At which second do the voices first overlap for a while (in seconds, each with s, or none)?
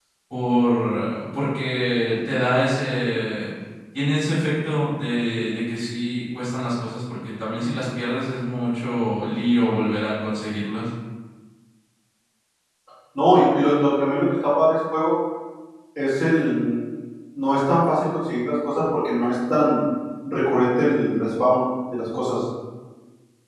none